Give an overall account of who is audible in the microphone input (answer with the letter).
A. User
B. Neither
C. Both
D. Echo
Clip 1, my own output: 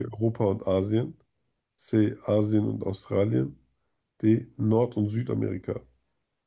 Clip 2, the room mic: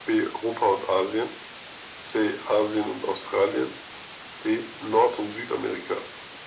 D